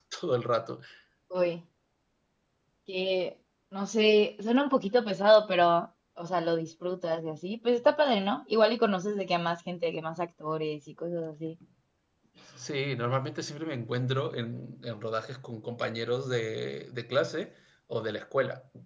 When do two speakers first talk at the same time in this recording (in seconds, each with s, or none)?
none